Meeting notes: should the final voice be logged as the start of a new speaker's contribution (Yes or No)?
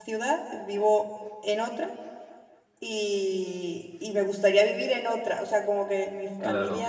No